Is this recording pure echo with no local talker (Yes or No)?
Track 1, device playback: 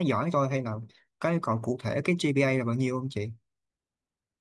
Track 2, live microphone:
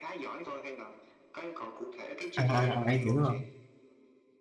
No